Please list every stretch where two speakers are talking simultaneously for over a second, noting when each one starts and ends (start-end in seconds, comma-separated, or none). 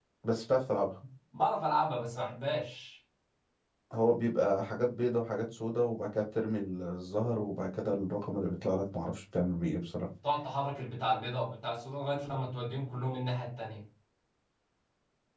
none